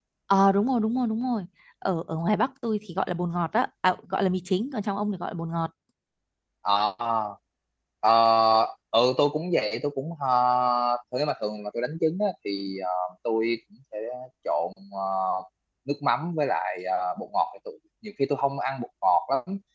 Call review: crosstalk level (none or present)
none